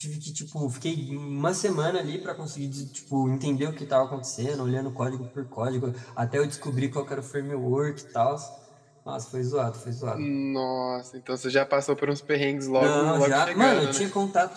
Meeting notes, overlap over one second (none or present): present